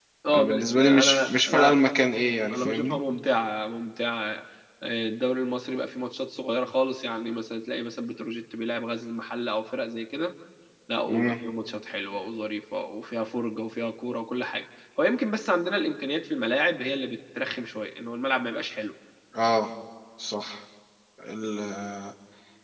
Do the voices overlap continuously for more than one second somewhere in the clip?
Yes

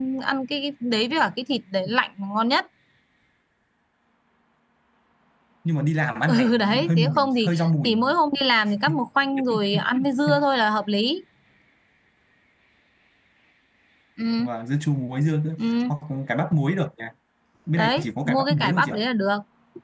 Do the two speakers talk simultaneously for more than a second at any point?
Yes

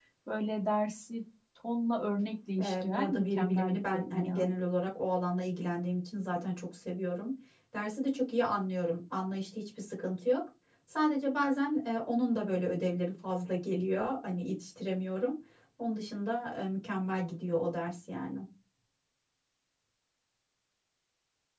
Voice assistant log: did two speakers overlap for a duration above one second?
Yes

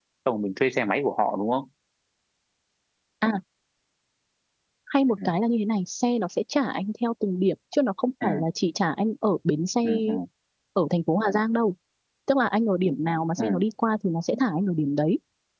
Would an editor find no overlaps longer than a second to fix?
Yes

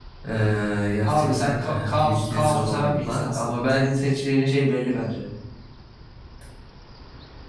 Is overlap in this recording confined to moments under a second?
No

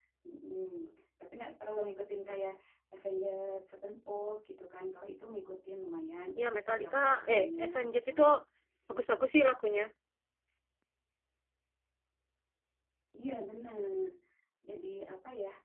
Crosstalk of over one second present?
Yes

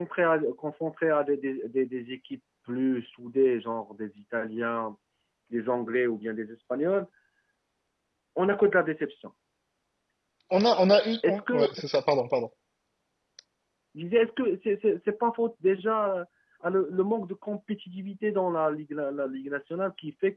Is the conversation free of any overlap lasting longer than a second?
Yes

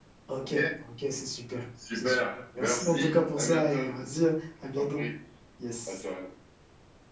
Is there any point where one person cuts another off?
Yes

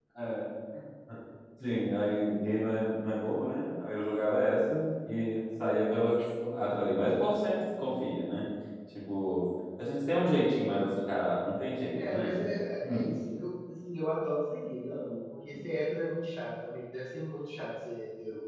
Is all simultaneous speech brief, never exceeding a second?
Yes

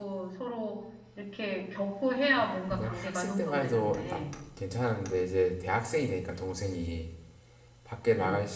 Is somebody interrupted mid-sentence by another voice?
Yes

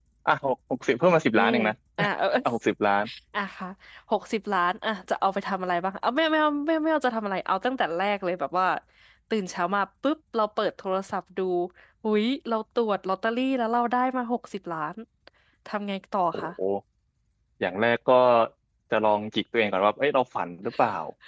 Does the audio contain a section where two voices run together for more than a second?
No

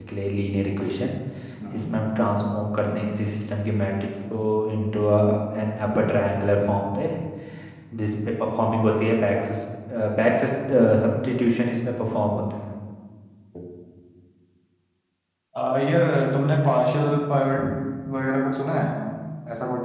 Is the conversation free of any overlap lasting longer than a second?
Yes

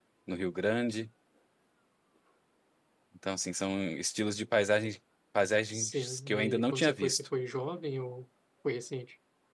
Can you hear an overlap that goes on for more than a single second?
Yes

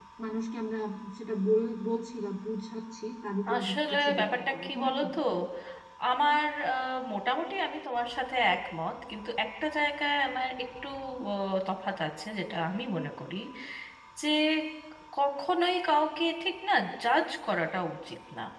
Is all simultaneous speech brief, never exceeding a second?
No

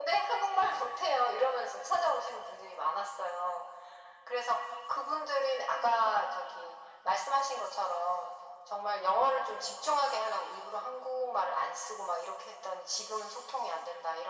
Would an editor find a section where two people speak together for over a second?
No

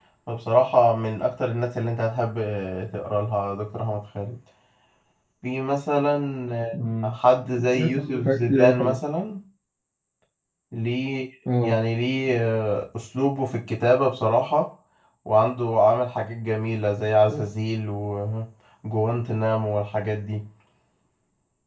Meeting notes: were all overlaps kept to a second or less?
No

